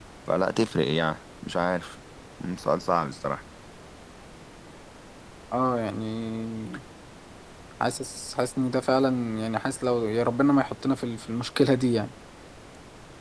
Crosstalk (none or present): none